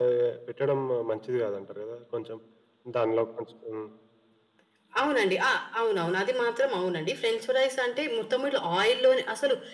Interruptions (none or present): none